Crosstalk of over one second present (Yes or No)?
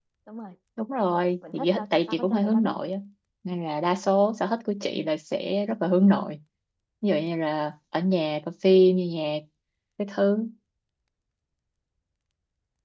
Yes